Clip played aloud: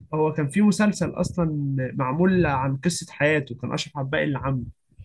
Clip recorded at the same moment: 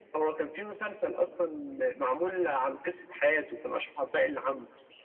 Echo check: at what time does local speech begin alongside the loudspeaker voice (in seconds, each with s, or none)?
none